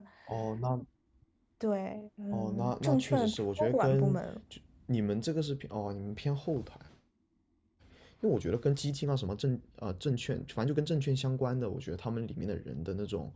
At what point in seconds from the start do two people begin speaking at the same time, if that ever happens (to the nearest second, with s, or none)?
2 s